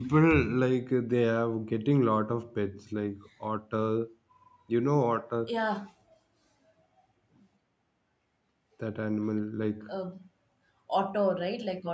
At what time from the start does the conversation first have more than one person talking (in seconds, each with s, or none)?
none